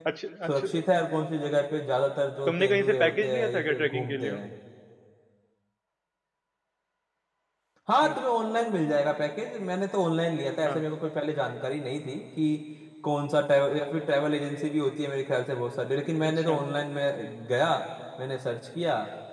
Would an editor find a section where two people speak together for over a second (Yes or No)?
Yes